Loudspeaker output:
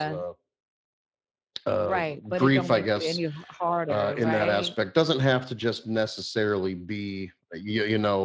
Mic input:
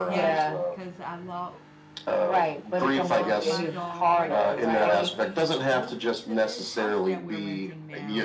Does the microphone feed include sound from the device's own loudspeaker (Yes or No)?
Yes